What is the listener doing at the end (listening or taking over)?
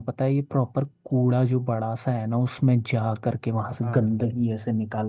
listening